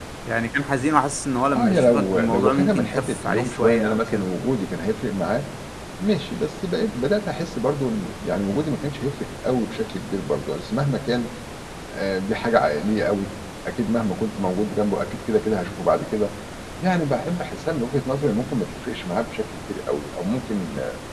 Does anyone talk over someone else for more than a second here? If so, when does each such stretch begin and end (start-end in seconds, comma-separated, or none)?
1.5-4.3